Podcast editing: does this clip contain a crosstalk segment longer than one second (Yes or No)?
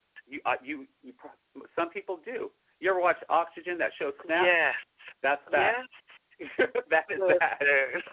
No